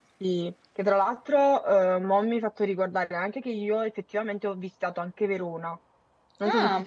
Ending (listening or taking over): taking over